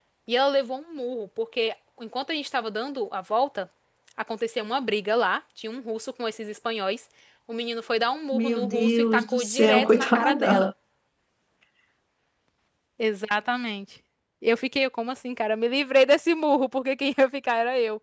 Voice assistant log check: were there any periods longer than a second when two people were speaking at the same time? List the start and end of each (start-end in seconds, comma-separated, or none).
8.3-10.7